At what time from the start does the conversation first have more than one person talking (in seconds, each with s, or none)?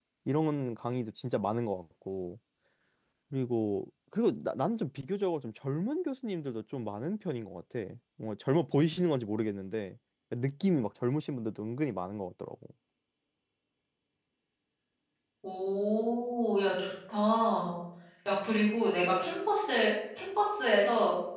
none